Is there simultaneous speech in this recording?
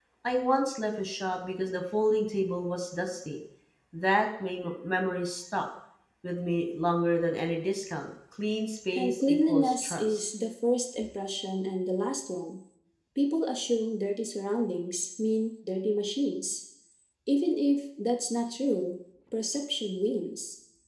Yes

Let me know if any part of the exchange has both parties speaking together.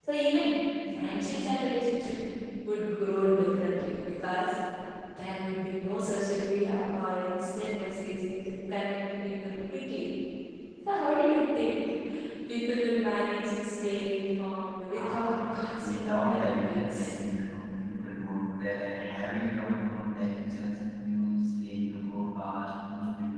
Yes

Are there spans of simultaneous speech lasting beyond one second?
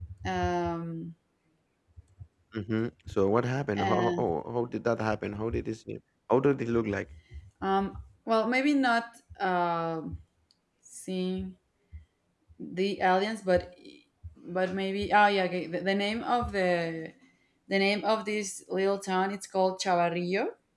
No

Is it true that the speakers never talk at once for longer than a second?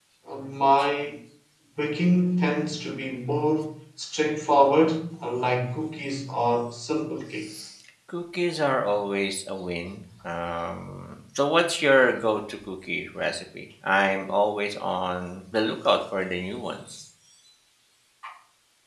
Yes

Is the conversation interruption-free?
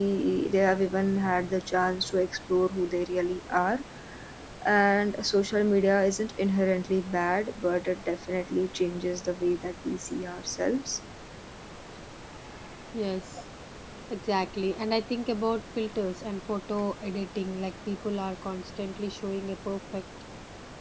Yes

